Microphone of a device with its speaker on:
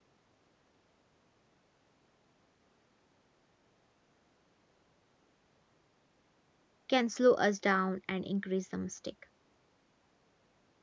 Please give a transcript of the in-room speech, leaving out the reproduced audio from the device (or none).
can slow us down and increase the mistake.